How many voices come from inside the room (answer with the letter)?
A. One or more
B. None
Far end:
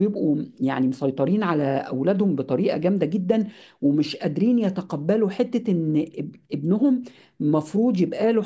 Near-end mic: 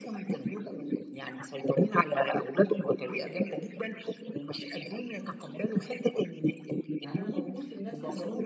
A